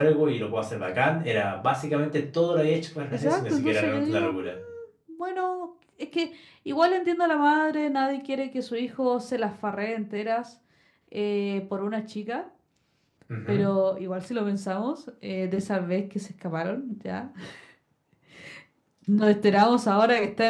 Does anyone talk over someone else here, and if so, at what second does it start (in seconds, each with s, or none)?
3.1 s